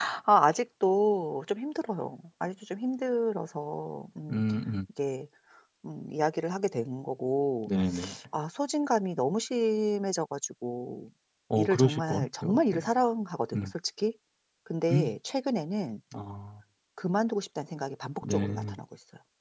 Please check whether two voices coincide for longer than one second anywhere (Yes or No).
Yes